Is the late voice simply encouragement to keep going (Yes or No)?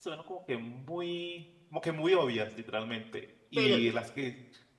Yes